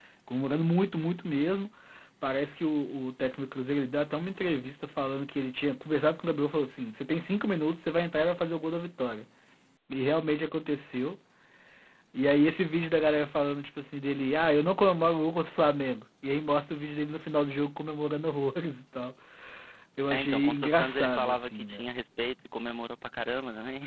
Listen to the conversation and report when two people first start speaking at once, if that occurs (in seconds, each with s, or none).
20.1 s